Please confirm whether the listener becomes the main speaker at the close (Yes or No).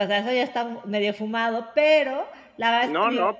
Yes